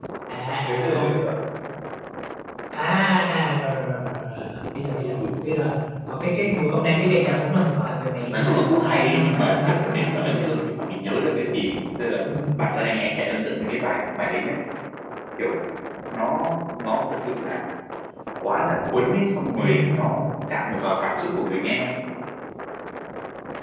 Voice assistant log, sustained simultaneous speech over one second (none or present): present